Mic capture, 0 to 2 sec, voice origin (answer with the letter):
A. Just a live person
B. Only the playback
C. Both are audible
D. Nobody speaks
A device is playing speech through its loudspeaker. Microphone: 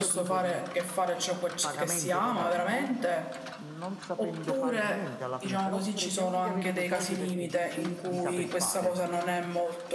B